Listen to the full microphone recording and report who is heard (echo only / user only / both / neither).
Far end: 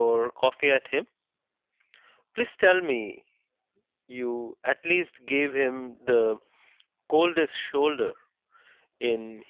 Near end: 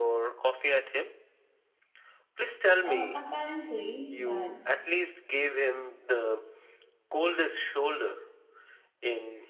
both